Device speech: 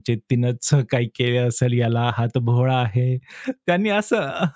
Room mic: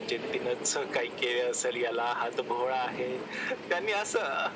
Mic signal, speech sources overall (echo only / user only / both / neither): echo only